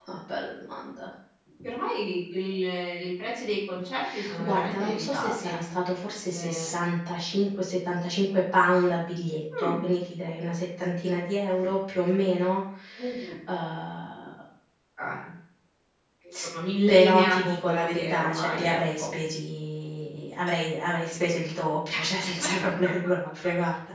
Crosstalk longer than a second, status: present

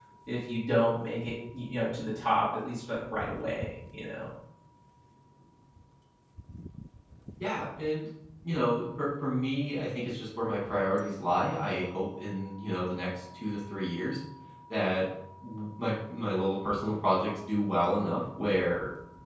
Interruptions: none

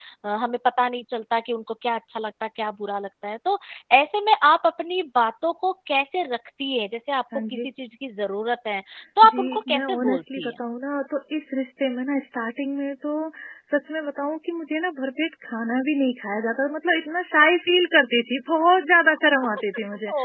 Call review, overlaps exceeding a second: present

